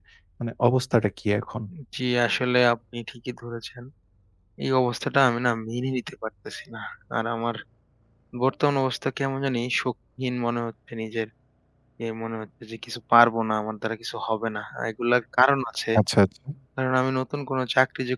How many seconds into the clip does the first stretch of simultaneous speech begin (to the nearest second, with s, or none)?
none